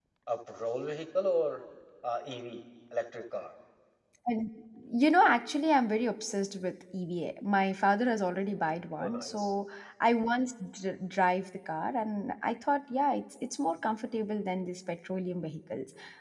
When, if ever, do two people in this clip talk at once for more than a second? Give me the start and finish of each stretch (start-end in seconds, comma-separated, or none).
none